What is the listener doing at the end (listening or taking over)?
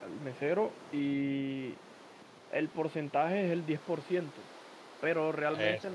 listening